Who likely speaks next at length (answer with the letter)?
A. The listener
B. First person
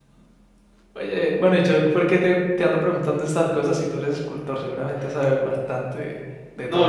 A